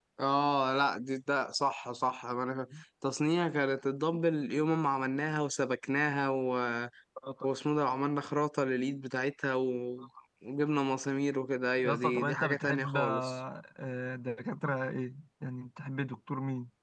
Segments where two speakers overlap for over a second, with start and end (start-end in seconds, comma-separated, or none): 11.8-13.3